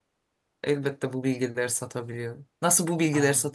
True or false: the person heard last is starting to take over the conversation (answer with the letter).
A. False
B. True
A